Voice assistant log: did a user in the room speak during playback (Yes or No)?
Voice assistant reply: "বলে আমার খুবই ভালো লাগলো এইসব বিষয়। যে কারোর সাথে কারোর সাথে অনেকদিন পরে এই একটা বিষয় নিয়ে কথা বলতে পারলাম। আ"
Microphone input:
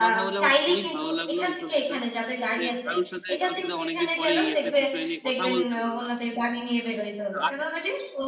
Yes